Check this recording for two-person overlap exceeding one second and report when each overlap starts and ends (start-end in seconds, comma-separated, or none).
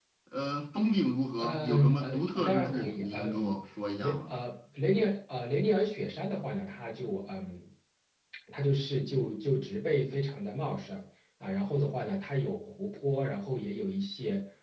1.4-3.6